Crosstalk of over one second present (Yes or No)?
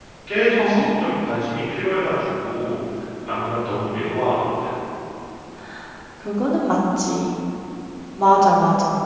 No